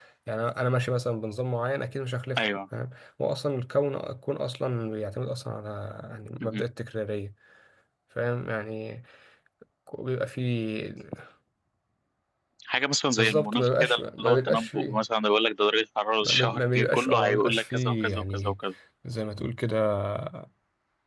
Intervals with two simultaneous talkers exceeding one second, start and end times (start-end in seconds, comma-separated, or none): 13.2-15.0, 16.2-18.6